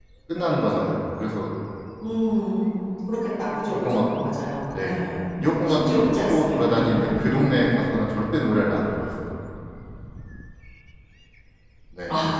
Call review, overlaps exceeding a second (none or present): present